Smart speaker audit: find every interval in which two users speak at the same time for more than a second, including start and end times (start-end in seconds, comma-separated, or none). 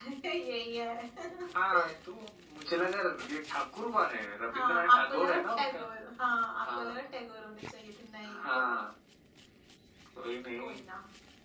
4.5-5.8